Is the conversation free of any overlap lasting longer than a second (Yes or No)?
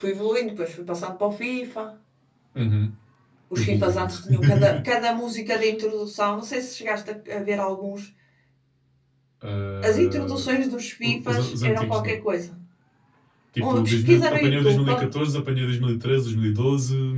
No